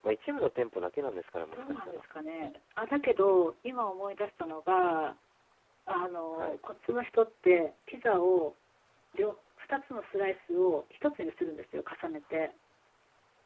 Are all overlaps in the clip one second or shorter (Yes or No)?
Yes